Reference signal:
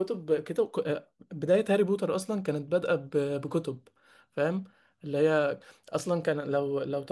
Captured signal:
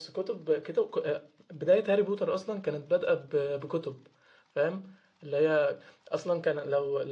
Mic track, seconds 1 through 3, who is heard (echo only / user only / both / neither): echo only